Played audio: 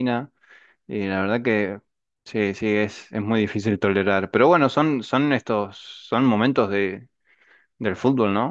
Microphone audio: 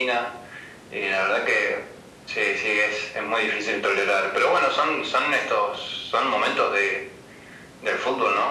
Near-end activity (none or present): none